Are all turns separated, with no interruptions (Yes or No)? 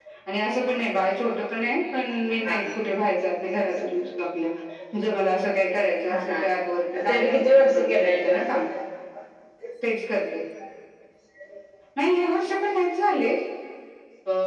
No